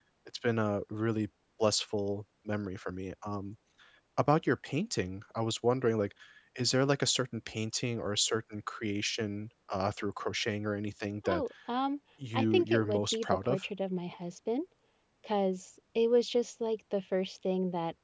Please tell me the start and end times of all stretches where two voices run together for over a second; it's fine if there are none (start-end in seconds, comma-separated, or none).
12.3-13.7